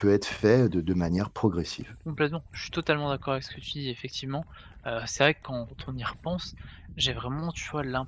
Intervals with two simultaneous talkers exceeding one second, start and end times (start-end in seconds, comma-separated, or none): none